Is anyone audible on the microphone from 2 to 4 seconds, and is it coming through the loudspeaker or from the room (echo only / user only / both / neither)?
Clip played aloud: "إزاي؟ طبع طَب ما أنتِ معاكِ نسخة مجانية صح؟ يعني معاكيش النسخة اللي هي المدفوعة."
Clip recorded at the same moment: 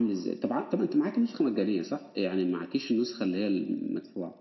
echo only